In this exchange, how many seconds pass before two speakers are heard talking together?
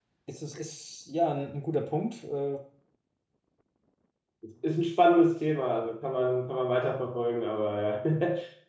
none

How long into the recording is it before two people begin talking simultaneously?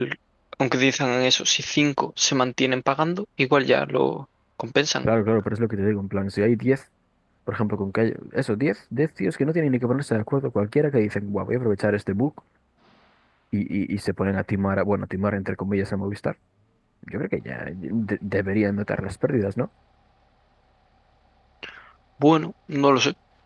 none

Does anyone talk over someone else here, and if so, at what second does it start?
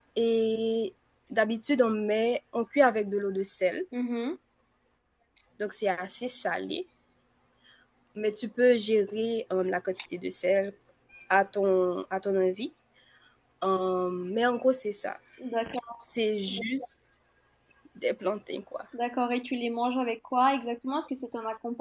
none

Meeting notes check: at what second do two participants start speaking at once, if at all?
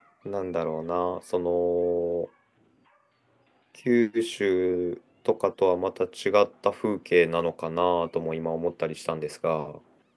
none

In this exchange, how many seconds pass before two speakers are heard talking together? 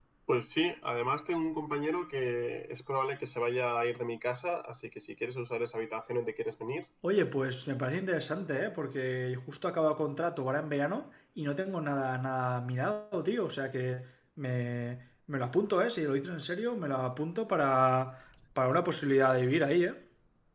none

